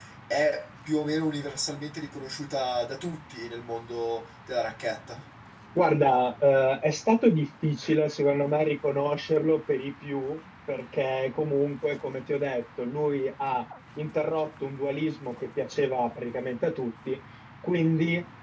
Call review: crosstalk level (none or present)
none